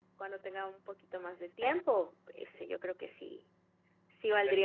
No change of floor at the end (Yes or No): Yes